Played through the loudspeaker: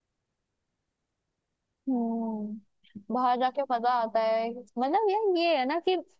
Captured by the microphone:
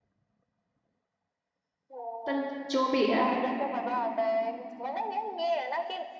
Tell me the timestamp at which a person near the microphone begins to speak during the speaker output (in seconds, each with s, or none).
2.2 s